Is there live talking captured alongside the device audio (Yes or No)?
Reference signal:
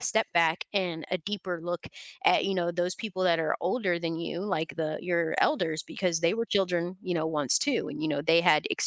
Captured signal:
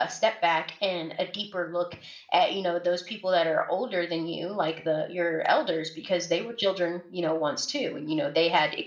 No